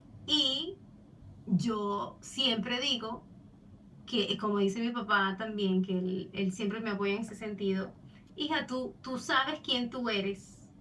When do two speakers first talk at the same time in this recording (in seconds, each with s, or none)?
none